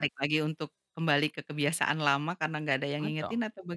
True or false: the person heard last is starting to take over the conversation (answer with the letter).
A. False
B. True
B